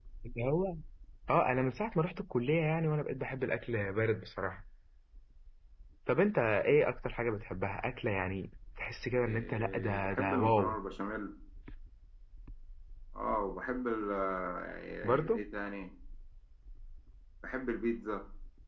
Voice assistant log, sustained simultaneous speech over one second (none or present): present